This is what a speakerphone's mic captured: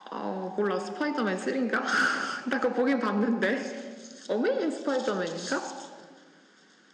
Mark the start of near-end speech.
none

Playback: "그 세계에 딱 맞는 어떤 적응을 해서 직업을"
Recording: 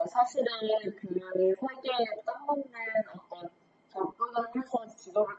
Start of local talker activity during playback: none

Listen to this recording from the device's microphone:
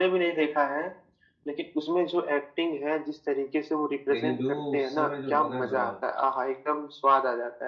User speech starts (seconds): 4.1 s

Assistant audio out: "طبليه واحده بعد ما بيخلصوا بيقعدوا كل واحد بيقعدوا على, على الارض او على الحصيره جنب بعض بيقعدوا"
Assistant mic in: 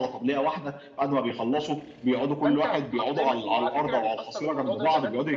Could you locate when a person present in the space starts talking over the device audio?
2.4 s

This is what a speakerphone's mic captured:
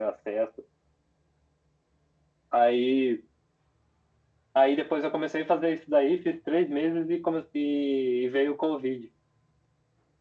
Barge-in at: none

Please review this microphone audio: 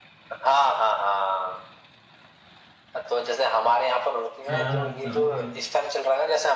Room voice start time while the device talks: 4.5 s

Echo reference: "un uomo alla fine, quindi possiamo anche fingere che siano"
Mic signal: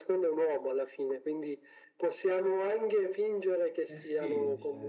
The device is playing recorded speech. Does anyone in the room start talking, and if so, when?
3.9 s

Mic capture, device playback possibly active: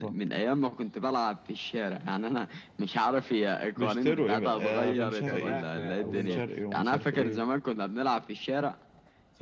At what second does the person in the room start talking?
5.2 s

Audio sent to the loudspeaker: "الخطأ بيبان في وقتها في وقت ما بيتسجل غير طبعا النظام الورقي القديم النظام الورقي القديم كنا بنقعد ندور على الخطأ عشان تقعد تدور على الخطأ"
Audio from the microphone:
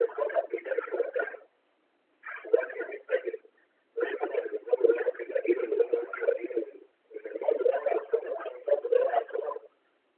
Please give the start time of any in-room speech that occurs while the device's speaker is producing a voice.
none

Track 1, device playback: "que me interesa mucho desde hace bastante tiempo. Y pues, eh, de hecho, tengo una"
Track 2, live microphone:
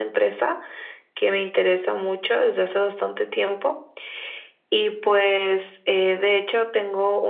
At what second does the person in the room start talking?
none

